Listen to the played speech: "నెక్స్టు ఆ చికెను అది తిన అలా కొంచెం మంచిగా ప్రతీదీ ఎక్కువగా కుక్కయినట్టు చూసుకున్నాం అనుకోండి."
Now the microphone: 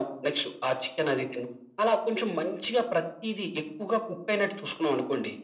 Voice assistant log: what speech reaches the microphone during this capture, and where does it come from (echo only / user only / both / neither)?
echo only